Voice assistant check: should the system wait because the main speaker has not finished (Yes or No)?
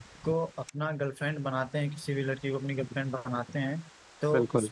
Yes